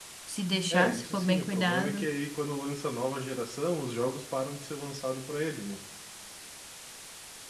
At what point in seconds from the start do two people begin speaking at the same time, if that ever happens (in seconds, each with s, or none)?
0.7 s